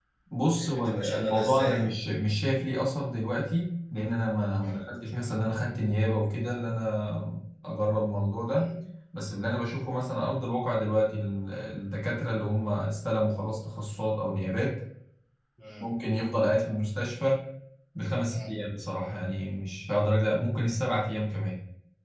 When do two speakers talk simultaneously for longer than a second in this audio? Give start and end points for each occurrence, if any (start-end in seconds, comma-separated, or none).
0.6-1.9